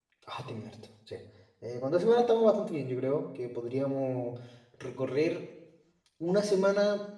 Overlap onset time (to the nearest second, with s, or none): none